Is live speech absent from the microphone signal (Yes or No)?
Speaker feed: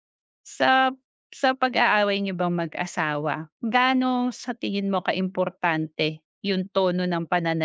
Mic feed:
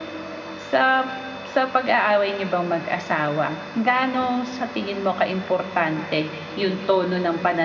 Yes